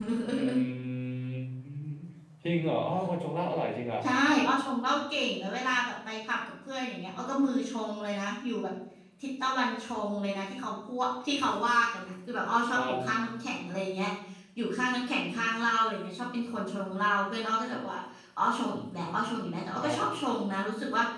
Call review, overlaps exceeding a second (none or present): none